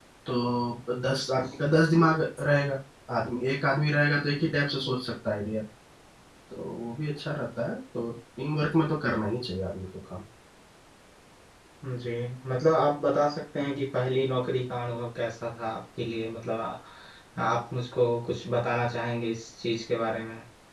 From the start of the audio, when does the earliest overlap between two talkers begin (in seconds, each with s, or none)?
none